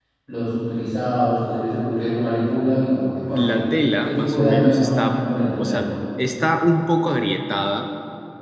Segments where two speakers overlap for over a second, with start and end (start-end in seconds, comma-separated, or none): 4.0-5.9